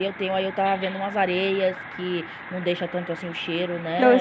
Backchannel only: No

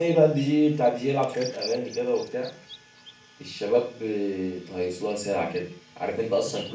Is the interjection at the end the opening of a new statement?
No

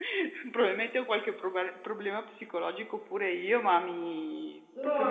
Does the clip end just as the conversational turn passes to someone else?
Yes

